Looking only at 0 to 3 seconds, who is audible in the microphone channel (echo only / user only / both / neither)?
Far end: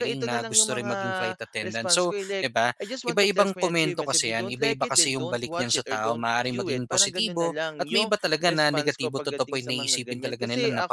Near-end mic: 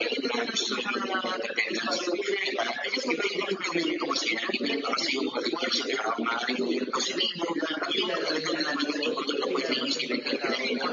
echo only